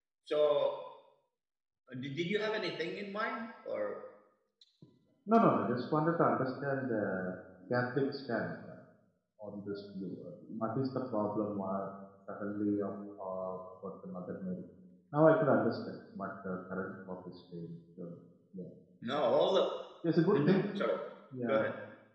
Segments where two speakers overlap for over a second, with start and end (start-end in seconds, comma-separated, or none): none